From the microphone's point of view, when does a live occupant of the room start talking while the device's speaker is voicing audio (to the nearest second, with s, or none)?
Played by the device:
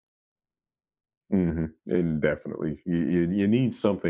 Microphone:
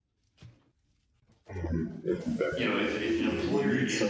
3 s